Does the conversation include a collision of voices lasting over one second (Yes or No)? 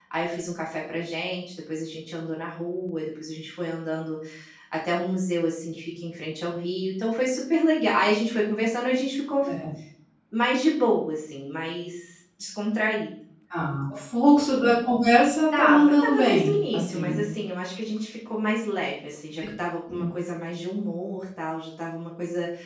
Yes